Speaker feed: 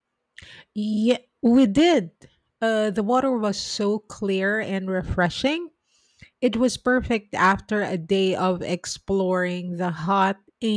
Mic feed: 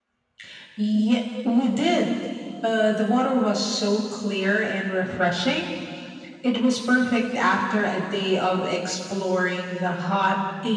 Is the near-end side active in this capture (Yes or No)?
No